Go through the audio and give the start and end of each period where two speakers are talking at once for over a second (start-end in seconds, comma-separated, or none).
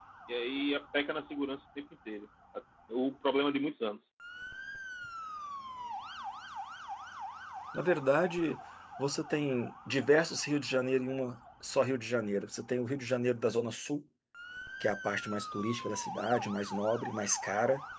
none